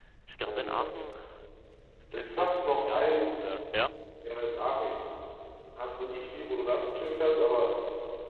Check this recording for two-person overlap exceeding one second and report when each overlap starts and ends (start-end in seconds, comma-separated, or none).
2.1-3.4